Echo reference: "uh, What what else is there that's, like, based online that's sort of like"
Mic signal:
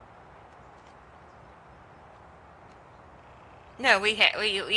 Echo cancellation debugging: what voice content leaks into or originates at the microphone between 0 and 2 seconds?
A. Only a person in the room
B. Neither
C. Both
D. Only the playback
B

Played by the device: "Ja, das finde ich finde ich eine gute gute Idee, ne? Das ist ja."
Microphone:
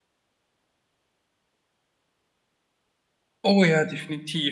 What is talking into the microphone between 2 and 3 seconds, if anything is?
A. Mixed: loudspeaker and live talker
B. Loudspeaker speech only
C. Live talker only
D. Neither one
D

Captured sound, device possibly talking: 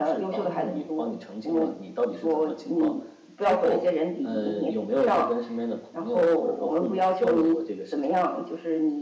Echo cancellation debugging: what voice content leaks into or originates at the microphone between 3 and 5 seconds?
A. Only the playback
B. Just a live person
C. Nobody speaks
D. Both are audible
A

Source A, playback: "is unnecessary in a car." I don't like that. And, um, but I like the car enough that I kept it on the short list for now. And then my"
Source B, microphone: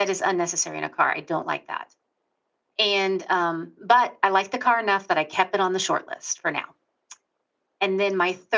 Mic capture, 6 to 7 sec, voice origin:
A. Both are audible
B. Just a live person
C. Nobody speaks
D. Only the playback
D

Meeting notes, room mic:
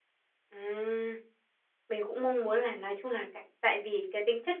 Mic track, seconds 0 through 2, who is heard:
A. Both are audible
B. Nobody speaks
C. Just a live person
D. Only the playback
C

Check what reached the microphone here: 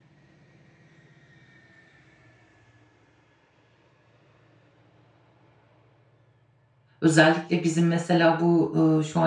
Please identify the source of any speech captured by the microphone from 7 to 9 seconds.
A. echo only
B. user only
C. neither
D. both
B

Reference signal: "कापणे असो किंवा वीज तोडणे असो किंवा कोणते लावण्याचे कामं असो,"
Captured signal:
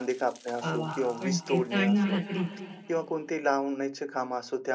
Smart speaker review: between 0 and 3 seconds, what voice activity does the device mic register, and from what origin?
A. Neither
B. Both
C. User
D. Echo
B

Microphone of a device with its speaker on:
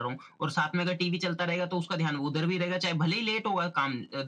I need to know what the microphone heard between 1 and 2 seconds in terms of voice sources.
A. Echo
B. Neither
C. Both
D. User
A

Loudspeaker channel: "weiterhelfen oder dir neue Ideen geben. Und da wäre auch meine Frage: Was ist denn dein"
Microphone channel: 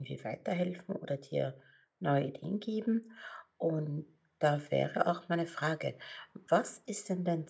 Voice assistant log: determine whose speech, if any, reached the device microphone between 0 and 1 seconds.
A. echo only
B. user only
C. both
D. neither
A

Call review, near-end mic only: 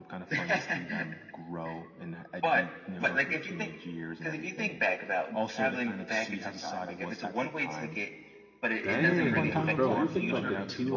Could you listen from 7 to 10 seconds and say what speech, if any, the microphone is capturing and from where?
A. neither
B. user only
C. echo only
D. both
D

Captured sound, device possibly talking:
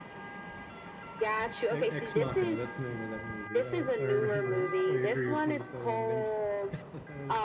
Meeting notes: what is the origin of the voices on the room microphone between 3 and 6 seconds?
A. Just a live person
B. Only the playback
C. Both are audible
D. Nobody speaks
C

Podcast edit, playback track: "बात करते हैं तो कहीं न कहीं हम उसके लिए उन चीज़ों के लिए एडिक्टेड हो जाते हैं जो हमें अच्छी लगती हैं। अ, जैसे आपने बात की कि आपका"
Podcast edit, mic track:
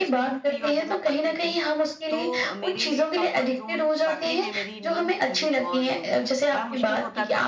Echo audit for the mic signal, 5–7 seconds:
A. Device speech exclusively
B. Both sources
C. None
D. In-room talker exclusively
B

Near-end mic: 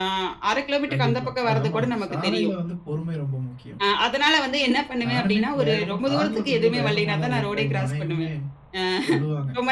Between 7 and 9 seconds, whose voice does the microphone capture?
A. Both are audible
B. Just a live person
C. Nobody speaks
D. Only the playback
A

